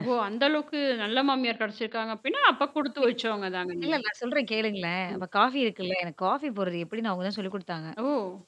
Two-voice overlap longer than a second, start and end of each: none

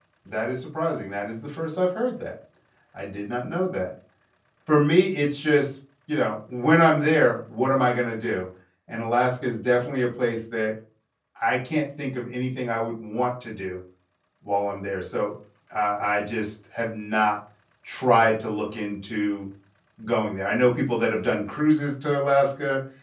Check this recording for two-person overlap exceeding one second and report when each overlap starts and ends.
none

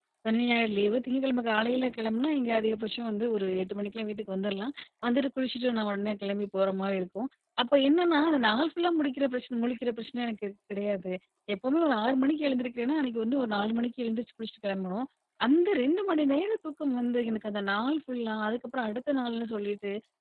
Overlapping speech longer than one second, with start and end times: none

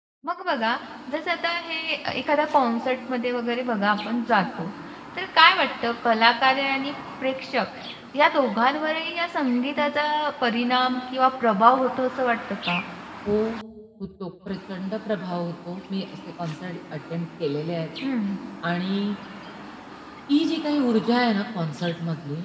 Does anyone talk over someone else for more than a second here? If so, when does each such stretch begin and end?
none

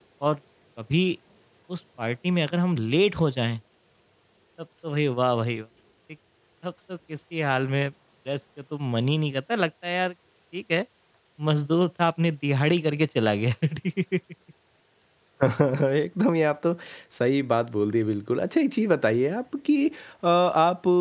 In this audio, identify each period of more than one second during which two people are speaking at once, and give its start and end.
none

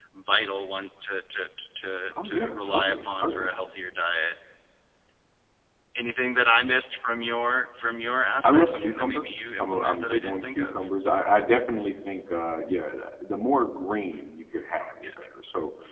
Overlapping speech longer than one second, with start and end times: 2.2-3.5, 8.4-10.8

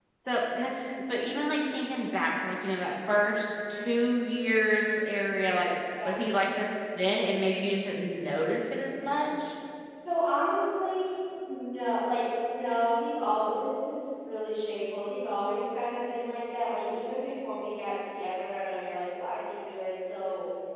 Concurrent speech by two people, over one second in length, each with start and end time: none

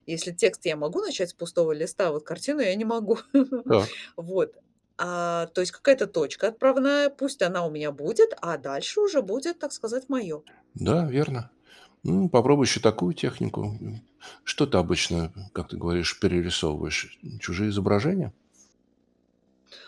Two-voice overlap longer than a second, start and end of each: none

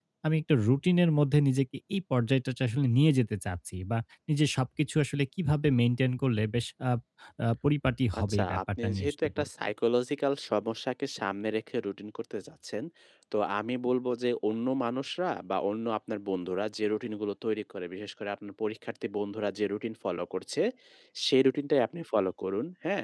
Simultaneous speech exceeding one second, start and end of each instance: 8.2-9.5

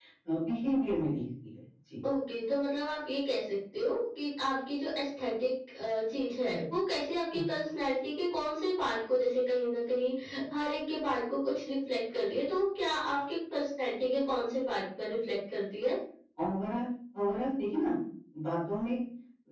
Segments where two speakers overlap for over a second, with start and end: none

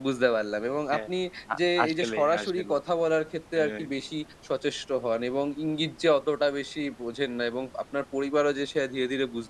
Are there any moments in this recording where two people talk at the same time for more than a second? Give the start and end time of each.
1.6-2.8

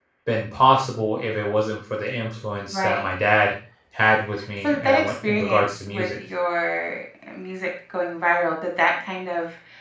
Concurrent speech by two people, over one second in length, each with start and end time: 4.6-6.1

